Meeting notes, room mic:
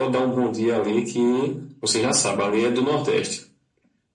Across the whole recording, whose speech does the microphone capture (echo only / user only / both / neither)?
echo only